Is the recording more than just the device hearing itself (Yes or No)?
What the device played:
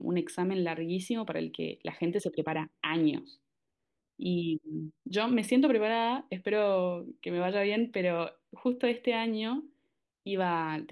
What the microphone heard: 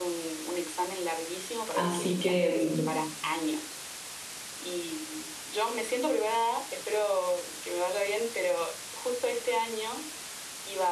Yes